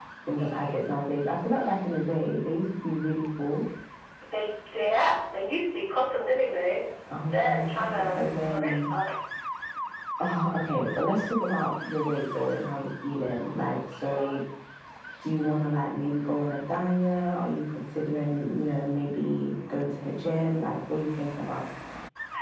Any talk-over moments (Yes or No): Yes